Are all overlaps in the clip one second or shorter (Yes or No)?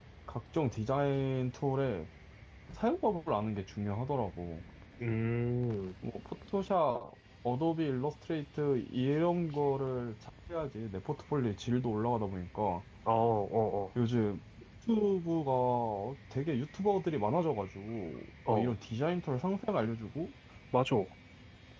Yes